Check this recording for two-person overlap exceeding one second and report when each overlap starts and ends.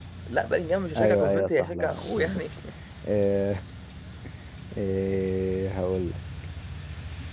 1.0-2.4

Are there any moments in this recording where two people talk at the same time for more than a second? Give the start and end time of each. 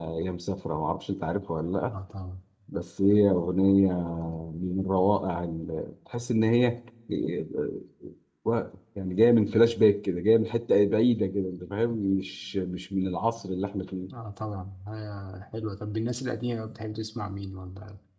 none

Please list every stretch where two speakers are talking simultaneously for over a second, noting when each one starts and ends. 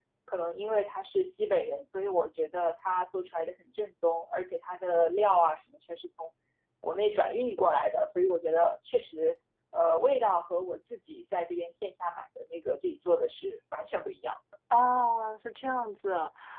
none

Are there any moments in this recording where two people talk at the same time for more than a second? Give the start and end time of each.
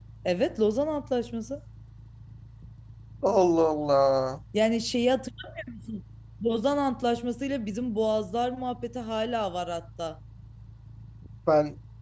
none

